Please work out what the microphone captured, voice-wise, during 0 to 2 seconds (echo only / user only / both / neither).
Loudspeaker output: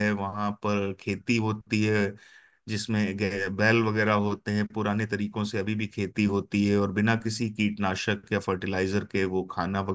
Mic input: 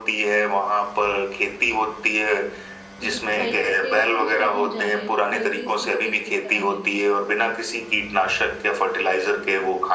echo only